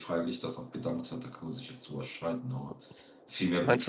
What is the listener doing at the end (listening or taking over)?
listening